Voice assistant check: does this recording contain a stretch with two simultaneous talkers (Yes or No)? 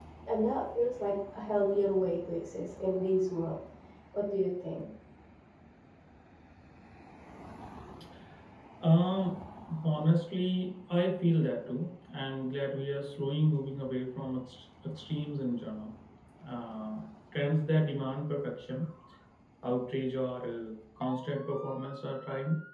No